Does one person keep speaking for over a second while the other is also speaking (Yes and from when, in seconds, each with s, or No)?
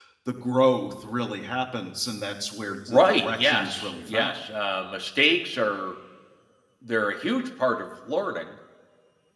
Yes, from 2.9 s